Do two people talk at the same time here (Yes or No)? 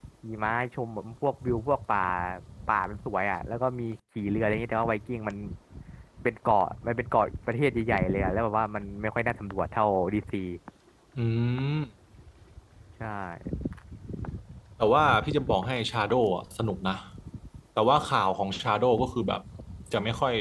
No